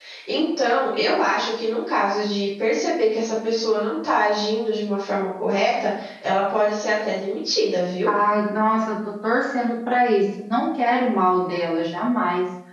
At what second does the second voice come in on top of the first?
none

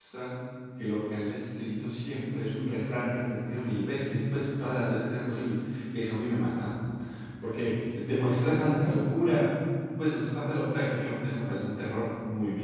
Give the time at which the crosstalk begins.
none

